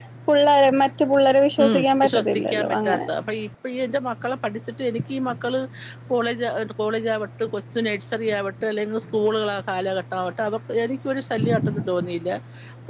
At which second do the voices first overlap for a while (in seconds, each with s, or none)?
1.6 s